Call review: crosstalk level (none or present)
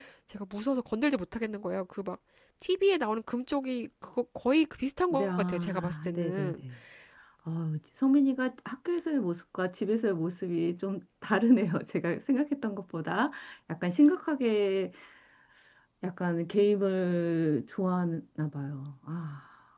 present